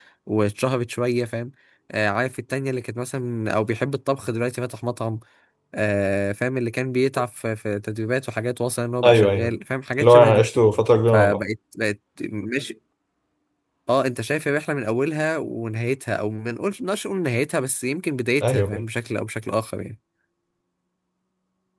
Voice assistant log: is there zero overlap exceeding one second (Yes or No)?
Yes